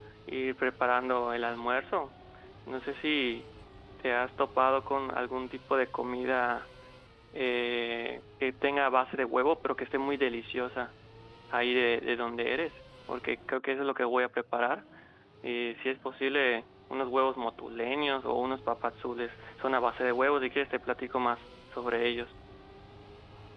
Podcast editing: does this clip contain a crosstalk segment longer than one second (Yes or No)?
No